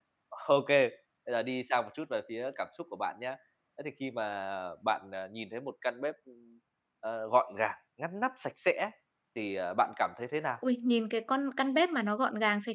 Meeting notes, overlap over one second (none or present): none